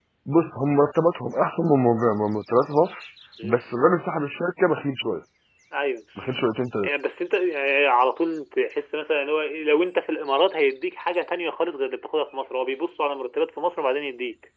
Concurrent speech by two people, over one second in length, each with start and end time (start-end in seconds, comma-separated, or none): none